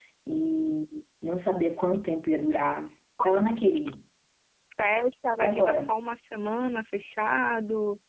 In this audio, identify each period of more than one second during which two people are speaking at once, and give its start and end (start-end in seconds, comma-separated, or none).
none